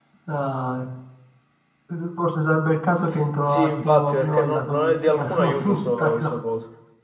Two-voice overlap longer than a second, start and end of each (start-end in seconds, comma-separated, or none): 3.5-6.3